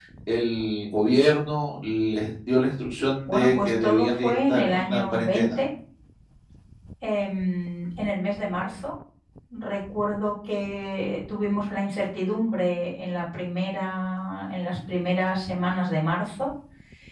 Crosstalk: present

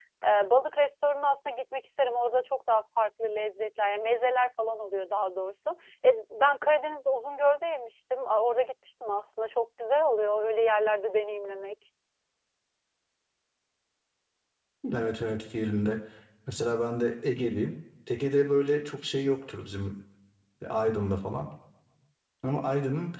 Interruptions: none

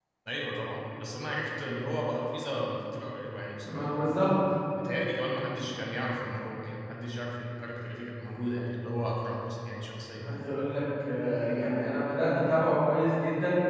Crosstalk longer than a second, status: none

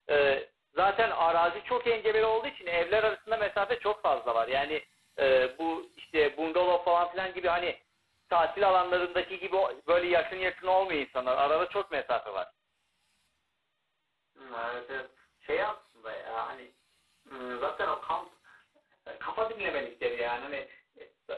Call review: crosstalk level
none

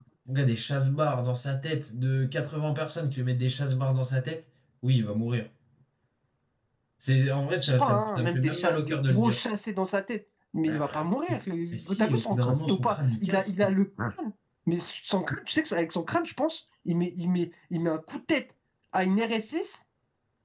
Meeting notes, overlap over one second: present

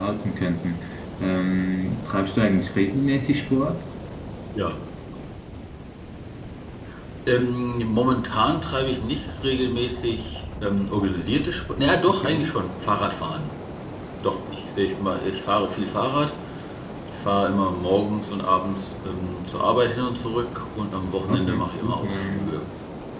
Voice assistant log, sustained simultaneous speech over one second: present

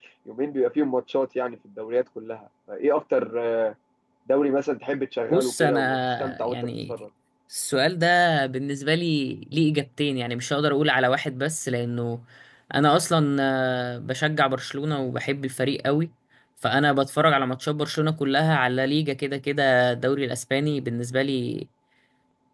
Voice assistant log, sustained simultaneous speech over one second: present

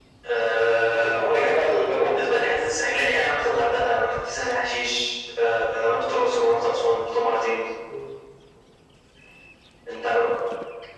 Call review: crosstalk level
present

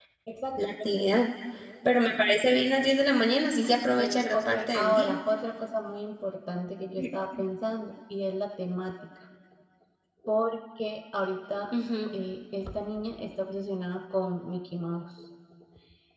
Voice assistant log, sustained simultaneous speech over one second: present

